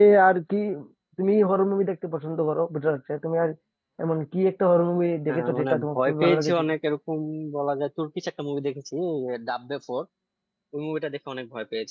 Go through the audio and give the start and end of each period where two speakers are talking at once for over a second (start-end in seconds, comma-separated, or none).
5.3-6.6